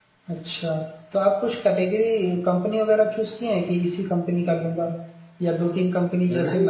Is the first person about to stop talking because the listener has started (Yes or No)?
Yes